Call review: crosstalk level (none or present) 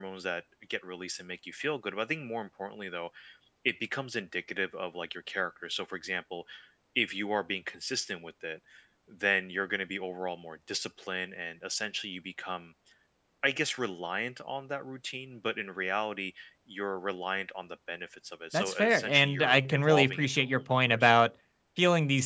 present